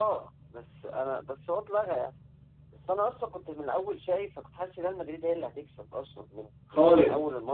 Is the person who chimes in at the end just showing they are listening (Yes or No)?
Yes